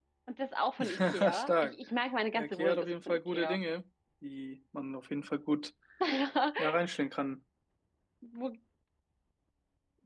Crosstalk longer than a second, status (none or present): present